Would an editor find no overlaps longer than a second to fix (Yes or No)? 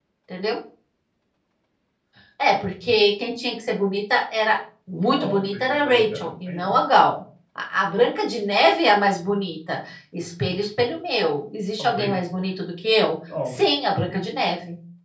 No